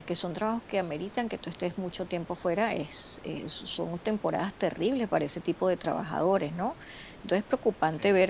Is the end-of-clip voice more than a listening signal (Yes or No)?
No